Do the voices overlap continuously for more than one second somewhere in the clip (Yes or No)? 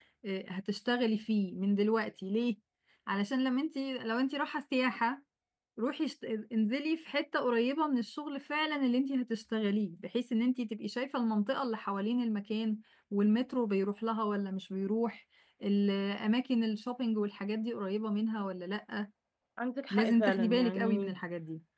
Yes